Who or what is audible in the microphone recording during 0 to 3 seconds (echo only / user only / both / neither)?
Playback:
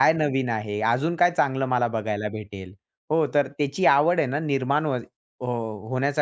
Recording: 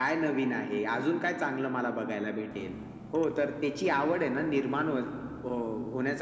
echo only